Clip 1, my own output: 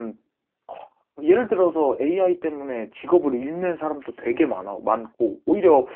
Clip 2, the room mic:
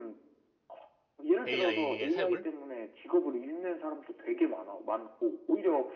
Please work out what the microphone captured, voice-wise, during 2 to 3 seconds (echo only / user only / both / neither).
both